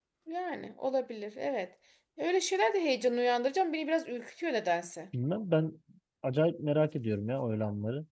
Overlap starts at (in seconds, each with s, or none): none